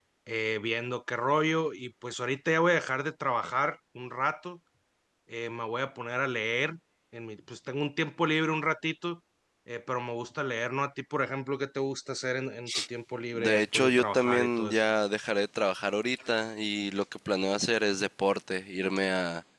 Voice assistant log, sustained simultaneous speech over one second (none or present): present